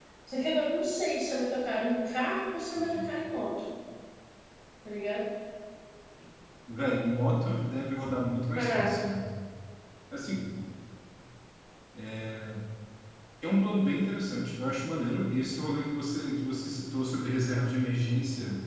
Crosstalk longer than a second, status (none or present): none